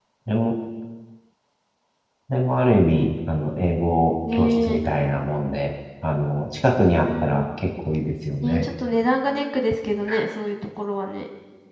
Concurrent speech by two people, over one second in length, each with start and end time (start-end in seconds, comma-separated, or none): none